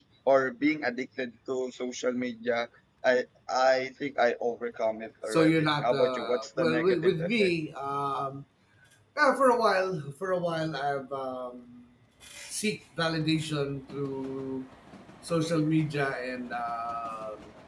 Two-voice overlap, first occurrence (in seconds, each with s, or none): 5.3 s